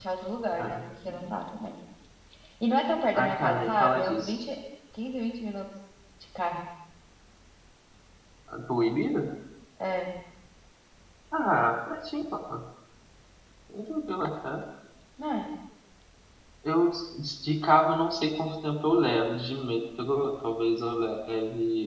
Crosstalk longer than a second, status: present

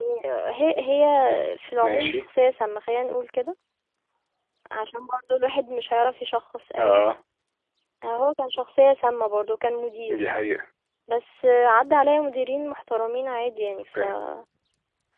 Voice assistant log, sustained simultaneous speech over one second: none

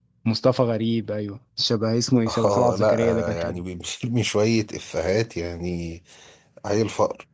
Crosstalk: present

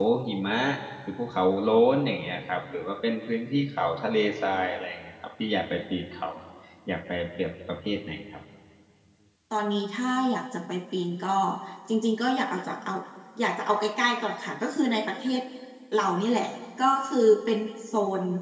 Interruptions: none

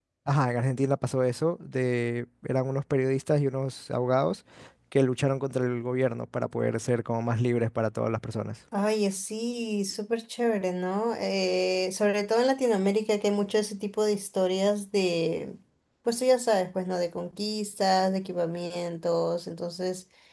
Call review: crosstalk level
none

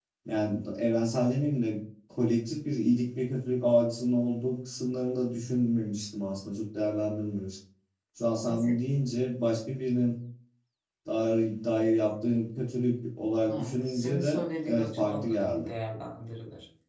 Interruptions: present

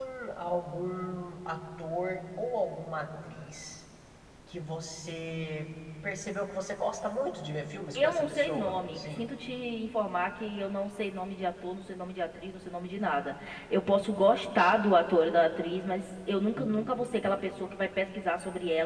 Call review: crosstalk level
present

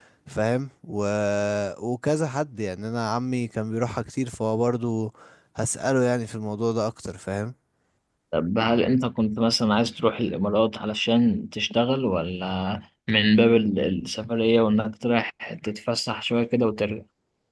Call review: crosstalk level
none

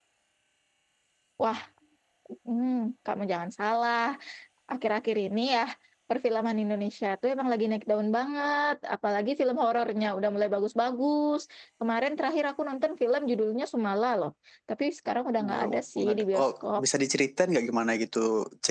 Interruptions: present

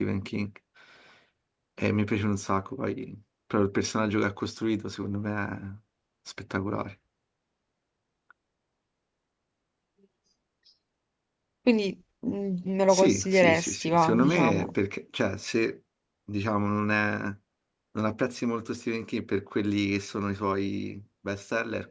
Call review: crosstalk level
present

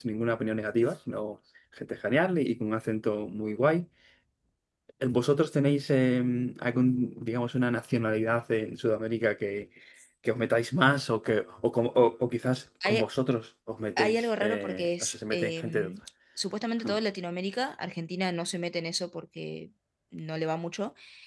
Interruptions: present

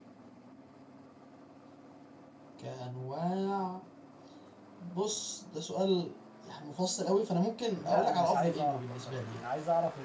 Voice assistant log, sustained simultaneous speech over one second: present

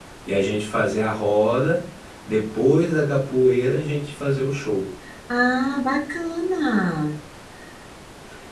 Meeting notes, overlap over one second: none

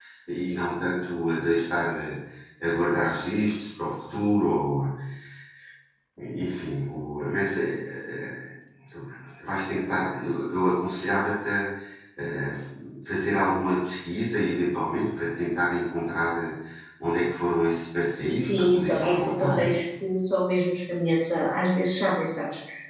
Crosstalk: present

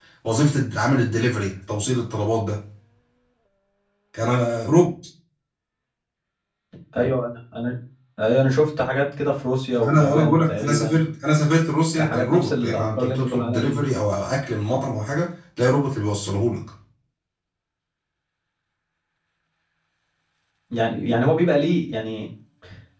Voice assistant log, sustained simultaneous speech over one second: present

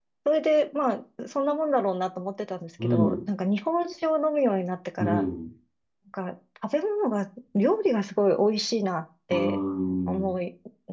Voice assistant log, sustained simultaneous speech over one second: none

